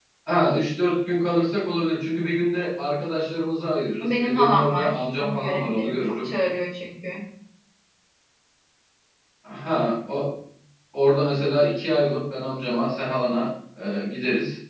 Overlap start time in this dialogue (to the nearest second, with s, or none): 4 s